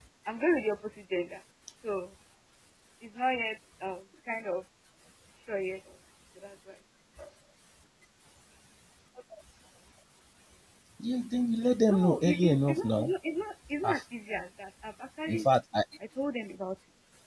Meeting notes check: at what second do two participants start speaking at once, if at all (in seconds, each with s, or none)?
11.9 s